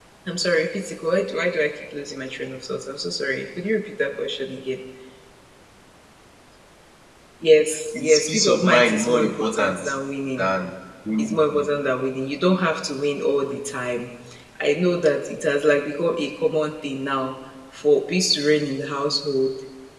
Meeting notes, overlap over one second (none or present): present